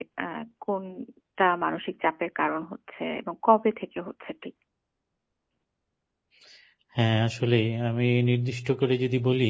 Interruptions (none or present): none